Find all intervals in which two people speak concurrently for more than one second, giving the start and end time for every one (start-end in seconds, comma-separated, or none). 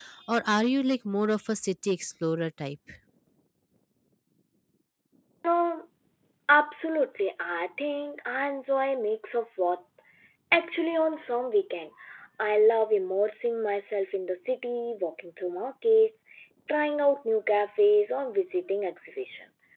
none